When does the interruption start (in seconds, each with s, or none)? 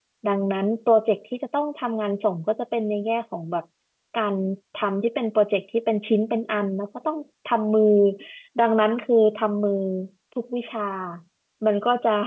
none